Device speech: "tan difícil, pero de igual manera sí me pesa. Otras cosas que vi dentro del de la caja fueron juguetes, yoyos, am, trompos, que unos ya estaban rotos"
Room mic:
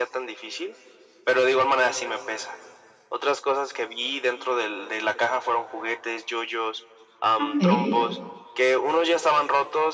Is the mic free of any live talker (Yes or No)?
No